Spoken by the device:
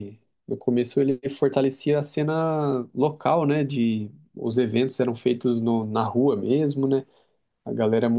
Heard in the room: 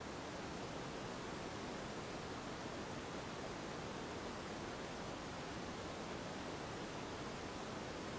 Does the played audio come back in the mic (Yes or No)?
No